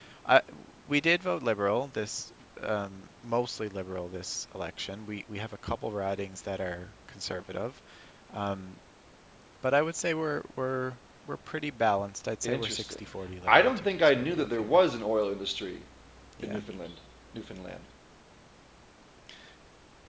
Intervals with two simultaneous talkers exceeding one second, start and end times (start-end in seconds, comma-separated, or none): 13.5-14.8